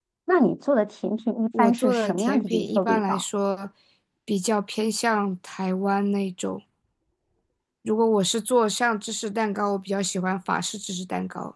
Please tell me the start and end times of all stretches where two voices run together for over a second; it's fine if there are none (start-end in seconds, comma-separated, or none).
1.6-3.2